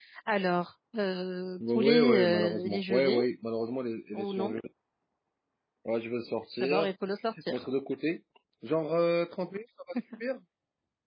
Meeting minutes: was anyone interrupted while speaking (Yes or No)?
Yes